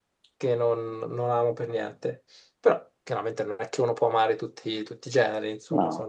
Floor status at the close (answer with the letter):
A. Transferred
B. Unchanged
B